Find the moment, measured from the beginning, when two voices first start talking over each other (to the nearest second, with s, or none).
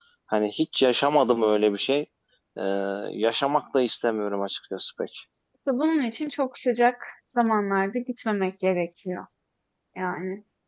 none